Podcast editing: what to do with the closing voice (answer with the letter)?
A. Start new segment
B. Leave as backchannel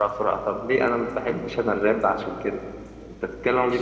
A